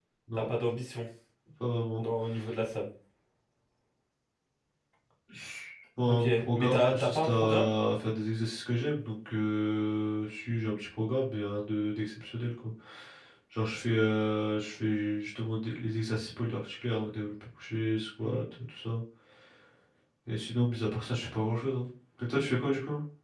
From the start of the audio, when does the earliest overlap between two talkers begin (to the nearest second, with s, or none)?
6 s